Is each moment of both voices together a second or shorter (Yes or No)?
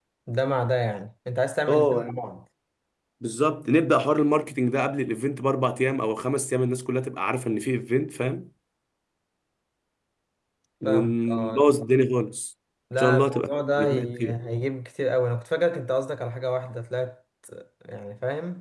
No